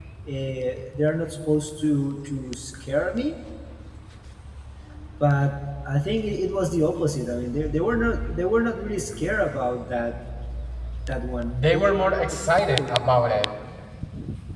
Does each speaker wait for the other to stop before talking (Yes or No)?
Yes